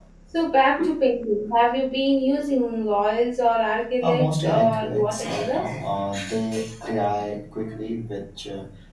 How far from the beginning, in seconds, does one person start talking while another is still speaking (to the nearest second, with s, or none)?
4 s